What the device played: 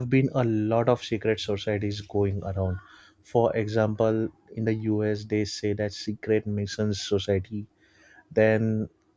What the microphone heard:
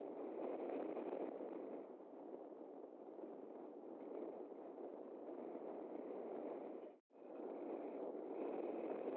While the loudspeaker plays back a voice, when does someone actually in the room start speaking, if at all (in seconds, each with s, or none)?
none